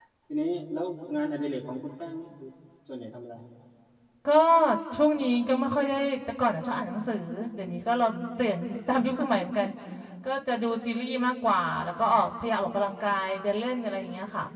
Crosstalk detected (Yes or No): No